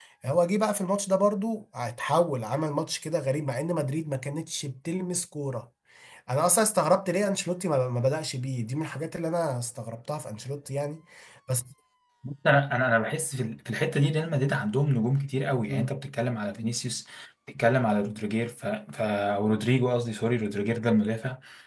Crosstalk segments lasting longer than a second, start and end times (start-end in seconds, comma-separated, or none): none